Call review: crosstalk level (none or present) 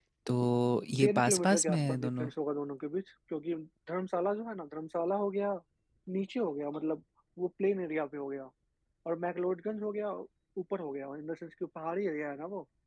present